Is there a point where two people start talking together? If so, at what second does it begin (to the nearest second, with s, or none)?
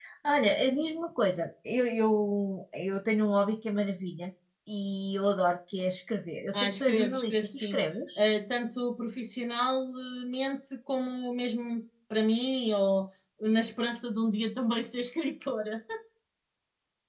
7 s